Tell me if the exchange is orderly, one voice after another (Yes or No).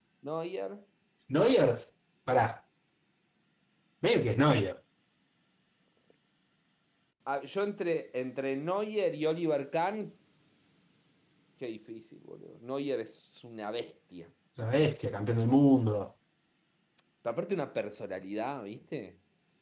Yes